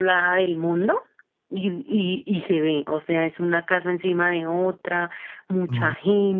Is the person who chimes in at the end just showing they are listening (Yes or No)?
Yes